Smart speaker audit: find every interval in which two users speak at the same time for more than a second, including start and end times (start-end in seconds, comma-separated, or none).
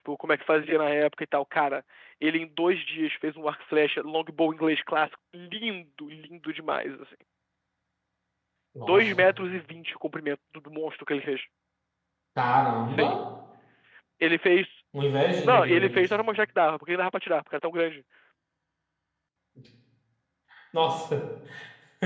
none